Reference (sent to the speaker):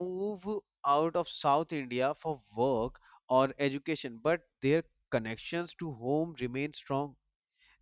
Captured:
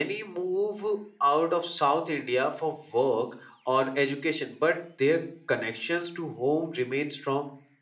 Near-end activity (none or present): none